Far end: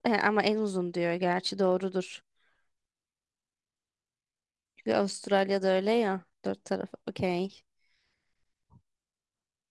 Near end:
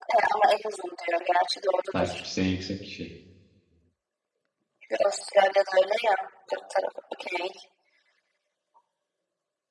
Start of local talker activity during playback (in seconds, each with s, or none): 1.9 s